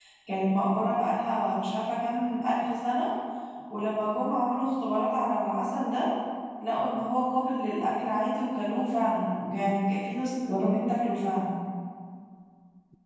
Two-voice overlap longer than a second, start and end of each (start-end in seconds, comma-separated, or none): none